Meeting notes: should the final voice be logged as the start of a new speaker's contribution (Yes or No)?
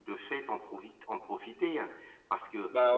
No